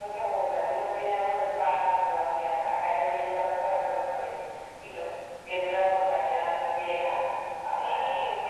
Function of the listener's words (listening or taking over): taking over